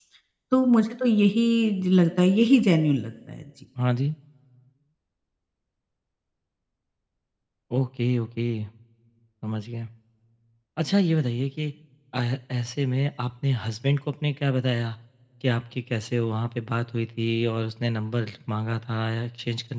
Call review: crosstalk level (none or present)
none